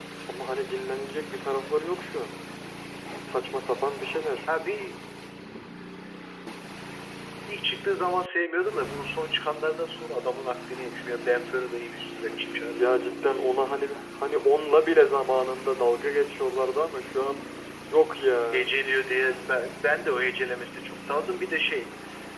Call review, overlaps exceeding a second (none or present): none